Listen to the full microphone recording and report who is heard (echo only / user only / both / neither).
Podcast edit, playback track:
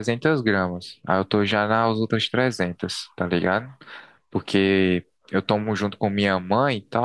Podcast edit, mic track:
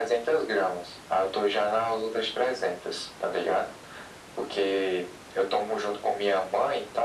echo only